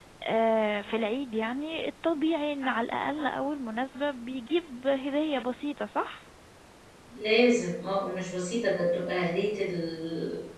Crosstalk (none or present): none